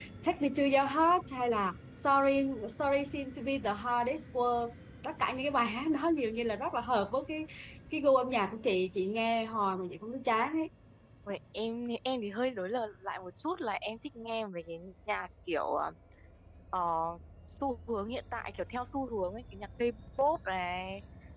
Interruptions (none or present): none